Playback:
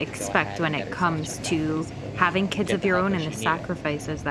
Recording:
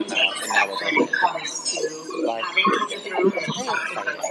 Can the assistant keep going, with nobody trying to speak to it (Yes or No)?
No